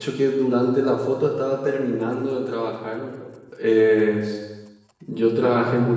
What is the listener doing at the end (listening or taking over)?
listening